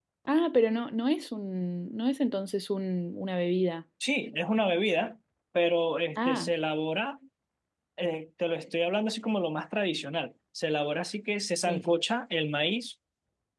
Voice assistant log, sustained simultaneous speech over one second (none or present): none